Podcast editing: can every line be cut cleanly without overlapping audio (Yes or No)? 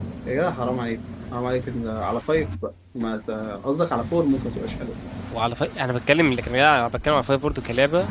Yes